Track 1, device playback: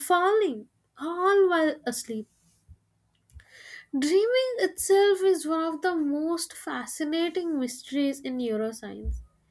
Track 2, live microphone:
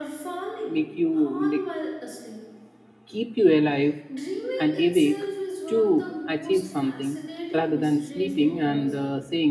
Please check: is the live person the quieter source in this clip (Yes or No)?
No